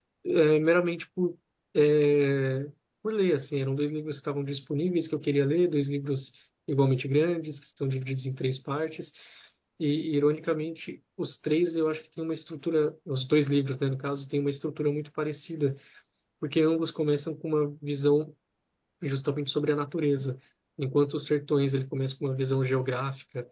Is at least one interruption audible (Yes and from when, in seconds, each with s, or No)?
No